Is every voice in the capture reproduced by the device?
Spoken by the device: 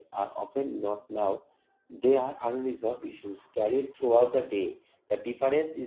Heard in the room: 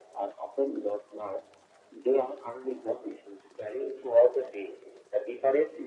Yes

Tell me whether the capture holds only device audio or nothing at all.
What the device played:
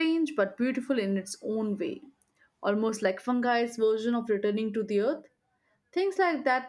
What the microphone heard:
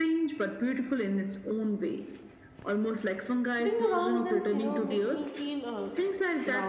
No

